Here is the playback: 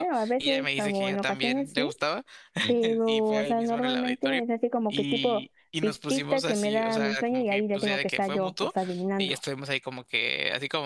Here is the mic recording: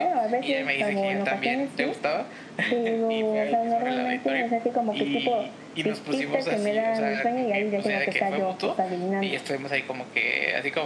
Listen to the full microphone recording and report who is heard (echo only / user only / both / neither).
echo only